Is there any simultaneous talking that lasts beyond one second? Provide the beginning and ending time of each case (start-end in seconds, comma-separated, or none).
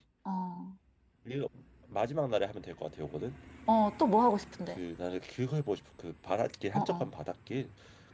none